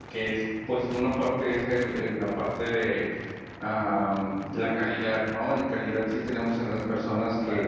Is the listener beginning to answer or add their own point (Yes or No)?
No